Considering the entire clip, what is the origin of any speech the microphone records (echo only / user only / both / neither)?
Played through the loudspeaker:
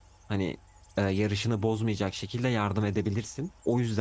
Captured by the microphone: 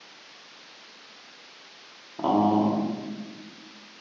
user only